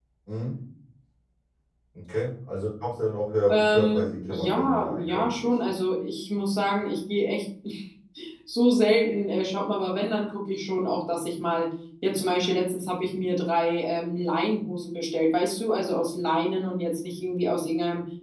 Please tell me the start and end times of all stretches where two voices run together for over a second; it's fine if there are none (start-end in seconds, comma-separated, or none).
3.5-5.5